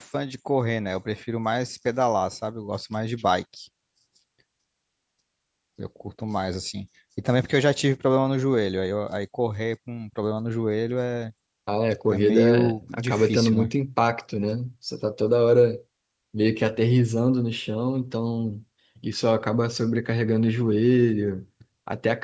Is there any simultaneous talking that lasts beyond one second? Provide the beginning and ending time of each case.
12.1-13.7

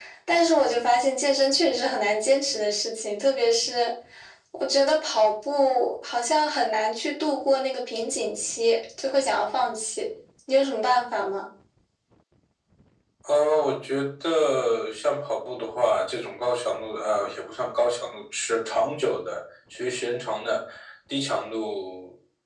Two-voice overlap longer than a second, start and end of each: none

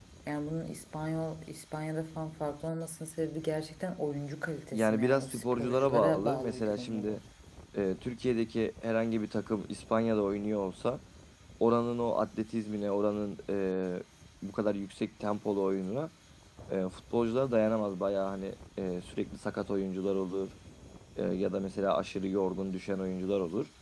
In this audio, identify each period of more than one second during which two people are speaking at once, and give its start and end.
4.7-7.2

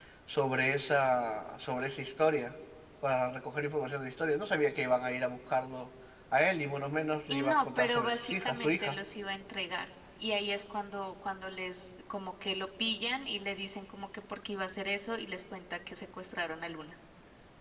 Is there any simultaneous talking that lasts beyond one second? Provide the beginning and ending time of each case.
7.3-9.0

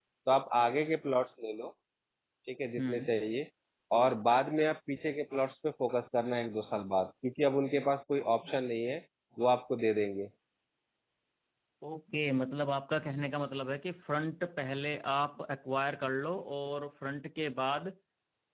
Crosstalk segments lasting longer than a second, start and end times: none

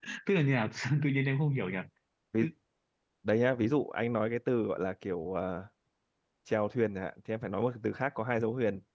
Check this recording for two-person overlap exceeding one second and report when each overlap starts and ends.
none

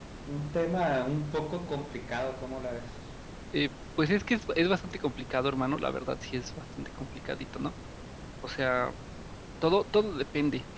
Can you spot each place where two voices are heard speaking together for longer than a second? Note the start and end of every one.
none

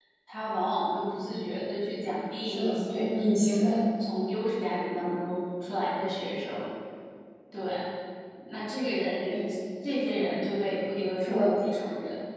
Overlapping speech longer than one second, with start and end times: 2.4-3.8

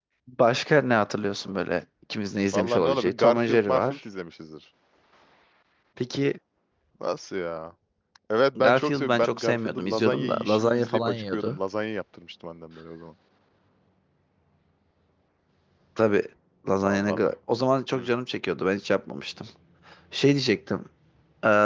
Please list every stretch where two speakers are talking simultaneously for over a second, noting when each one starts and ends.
2.5-4.0, 8.6-11.6

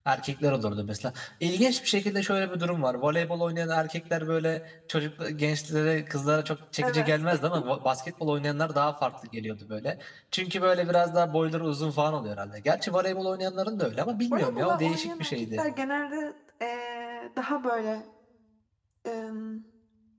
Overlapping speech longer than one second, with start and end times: 14.3-15.7

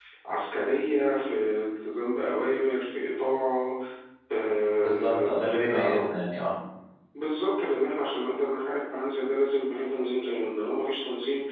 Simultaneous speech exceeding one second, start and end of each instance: 4.8-6.0

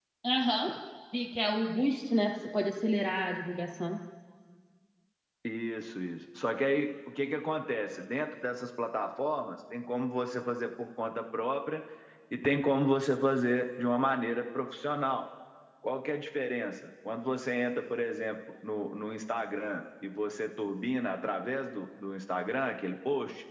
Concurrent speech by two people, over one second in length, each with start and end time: none

